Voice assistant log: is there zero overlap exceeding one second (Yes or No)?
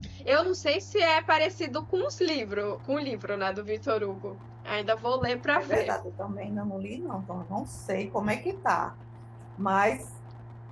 Yes